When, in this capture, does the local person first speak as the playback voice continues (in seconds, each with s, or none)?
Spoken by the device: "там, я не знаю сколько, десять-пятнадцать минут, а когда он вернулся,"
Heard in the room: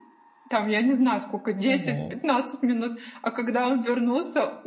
1.6 s